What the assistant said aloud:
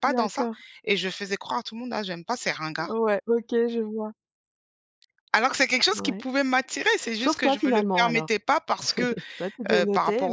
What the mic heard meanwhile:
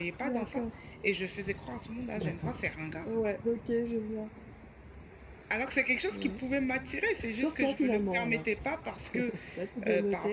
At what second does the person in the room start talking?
2.2 s

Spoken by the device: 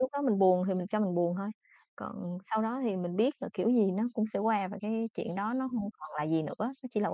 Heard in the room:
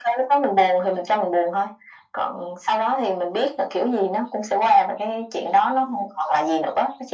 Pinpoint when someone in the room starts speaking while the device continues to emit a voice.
none

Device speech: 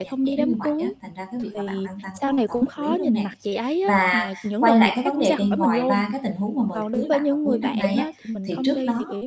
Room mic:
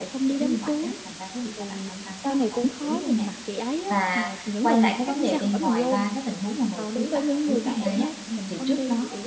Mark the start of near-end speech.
none

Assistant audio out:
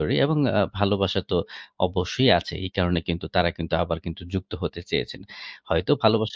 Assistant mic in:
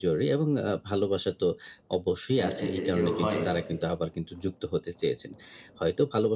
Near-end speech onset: 2.4 s

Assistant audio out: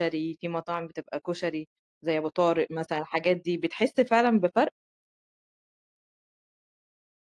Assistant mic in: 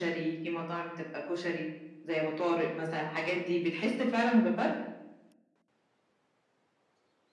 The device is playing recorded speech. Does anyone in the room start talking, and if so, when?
none

